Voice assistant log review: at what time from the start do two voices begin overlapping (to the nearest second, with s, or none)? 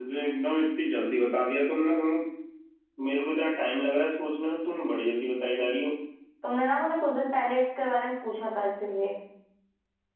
none